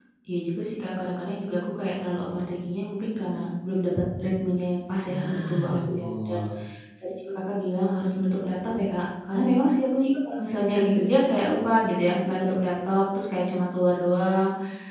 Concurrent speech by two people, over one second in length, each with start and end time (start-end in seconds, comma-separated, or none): 5.1-6.4